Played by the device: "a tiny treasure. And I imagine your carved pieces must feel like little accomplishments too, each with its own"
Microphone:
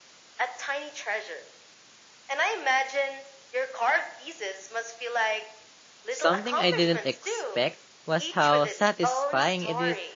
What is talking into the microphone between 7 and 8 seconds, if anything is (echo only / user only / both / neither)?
both